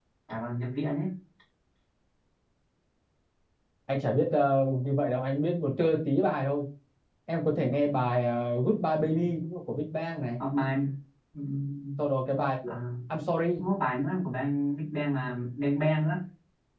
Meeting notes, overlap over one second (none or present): none